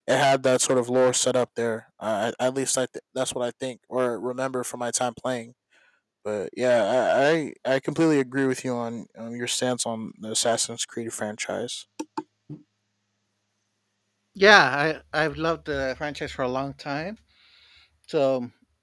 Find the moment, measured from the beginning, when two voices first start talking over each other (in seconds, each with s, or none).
none